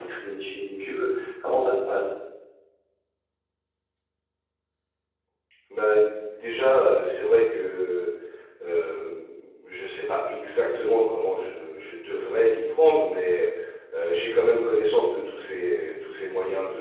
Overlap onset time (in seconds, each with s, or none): none